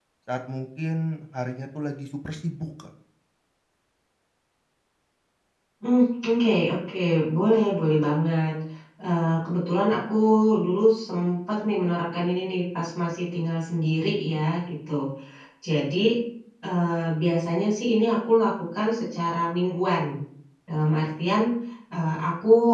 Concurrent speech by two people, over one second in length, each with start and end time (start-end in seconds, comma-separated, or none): none